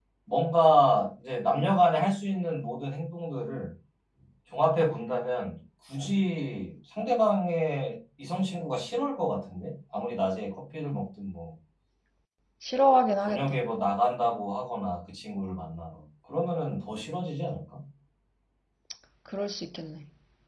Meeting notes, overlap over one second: none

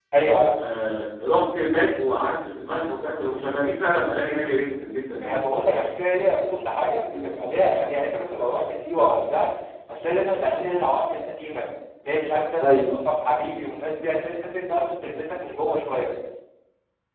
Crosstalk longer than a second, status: none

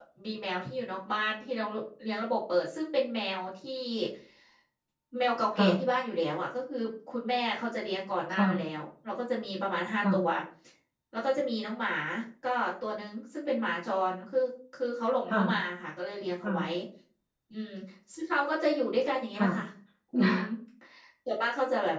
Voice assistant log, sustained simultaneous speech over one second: none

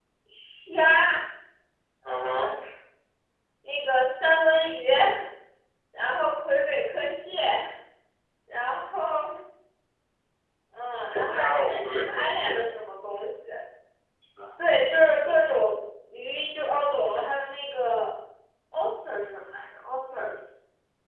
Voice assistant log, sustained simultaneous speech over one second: present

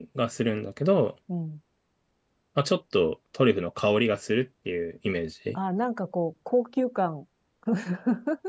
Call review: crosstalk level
none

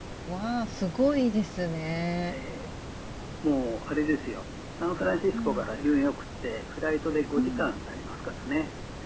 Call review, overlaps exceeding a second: none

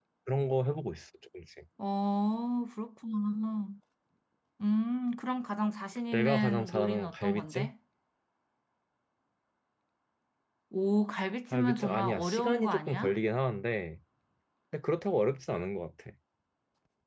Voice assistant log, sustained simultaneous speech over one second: present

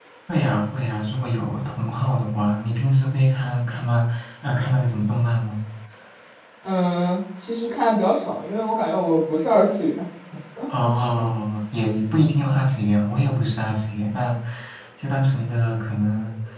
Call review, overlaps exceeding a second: none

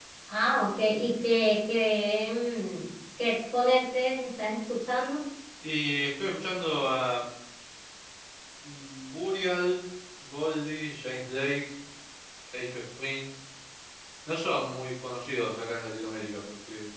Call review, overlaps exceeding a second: none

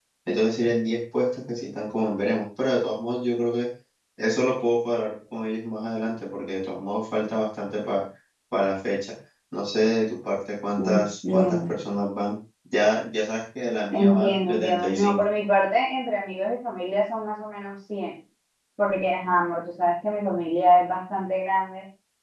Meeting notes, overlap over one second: present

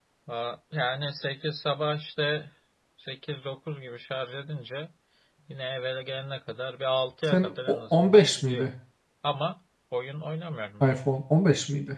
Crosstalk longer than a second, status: present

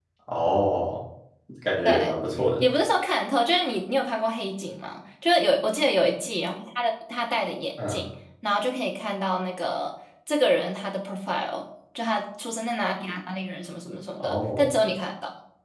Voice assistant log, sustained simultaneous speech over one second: none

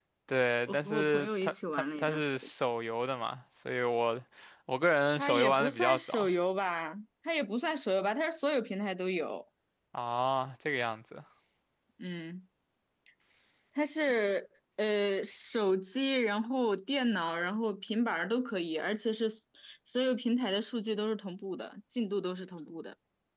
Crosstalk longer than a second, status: present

